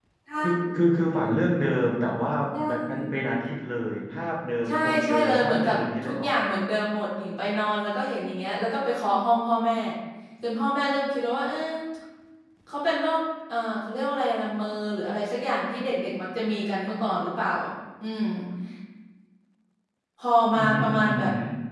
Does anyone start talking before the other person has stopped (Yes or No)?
Yes